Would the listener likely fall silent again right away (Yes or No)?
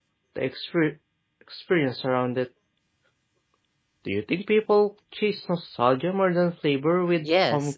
No